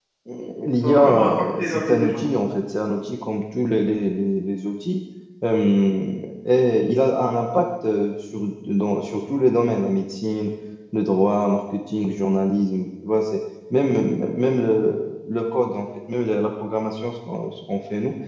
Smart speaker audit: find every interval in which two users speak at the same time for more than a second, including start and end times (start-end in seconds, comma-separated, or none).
0.8-2.2